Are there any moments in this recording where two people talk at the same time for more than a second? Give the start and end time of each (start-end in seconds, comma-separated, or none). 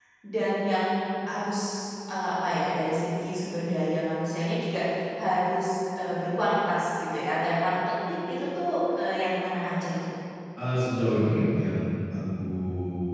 none